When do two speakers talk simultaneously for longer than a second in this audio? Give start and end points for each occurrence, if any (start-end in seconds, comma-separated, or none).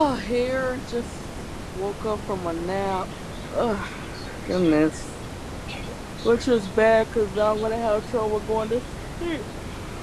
none